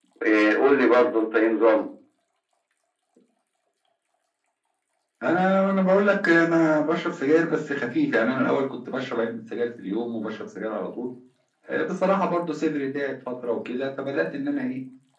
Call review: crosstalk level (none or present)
none